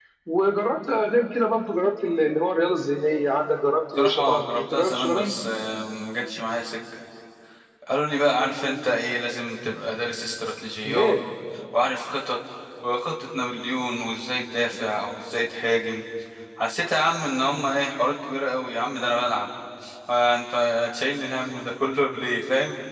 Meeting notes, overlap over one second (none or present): present